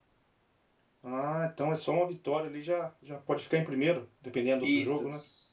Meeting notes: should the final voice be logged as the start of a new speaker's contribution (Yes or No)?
Yes